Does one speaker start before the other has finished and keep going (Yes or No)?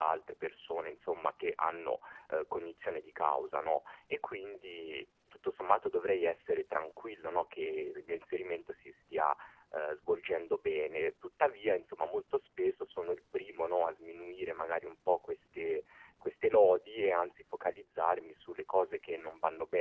No